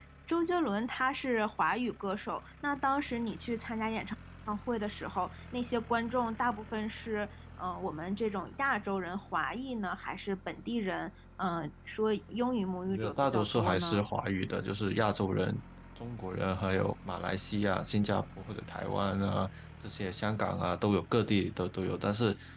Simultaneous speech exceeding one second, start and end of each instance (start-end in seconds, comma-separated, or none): 12.9-14.1